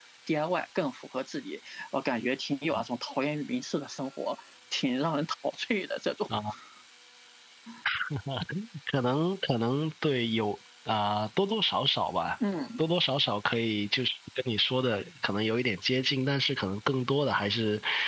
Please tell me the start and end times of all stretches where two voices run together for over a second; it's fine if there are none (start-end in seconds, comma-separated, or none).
none